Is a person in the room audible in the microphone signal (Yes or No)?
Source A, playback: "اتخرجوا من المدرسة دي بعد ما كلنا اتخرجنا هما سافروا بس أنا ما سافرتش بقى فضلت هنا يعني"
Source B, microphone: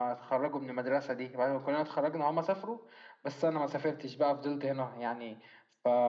No